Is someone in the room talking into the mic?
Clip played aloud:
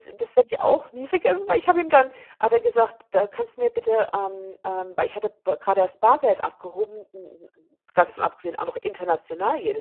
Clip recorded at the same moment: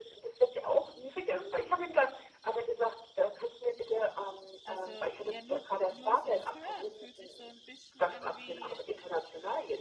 Yes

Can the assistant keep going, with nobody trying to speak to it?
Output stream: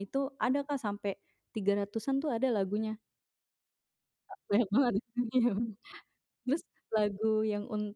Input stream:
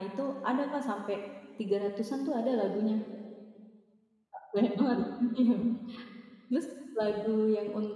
Yes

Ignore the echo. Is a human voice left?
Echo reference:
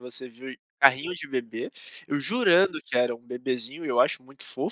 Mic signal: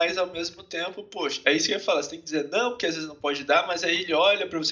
Yes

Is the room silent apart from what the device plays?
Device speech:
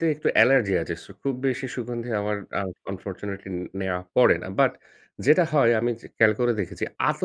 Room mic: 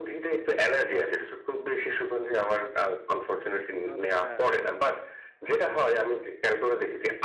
No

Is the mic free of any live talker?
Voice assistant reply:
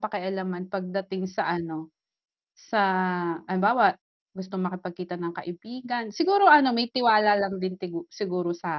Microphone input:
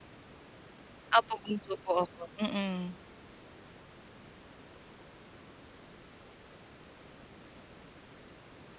No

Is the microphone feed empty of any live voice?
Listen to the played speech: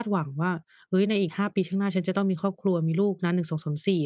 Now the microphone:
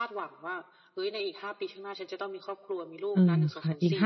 No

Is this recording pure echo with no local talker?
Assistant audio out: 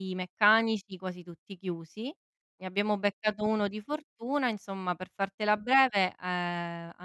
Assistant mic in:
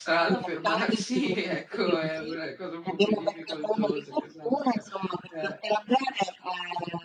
No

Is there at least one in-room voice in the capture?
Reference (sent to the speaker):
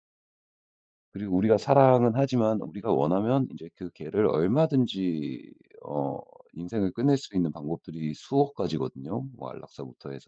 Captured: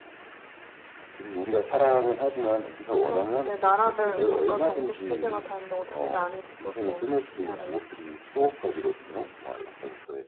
Yes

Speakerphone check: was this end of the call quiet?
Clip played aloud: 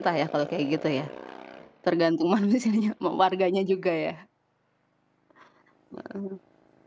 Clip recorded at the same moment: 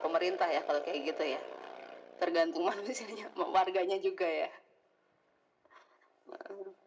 Yes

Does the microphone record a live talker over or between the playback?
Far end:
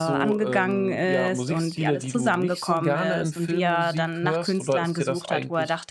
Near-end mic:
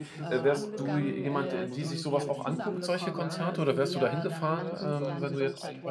Yes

